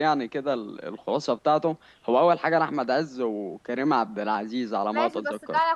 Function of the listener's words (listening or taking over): taking over